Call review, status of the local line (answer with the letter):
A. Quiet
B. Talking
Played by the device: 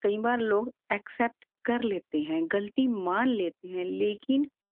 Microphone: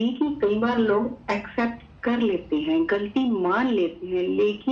A